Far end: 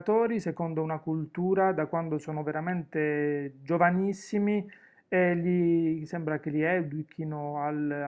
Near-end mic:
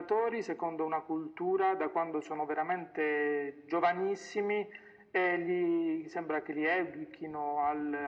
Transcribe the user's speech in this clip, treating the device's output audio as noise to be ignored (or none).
none